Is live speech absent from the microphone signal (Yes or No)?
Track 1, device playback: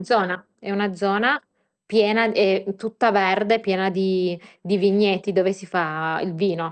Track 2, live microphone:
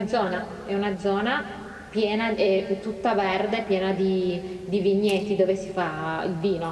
Yes